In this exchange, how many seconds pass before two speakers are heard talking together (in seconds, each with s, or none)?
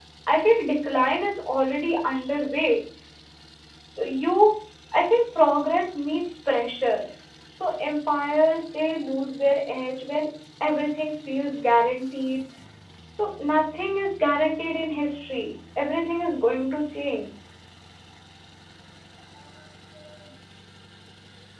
none